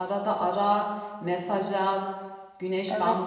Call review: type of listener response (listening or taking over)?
listening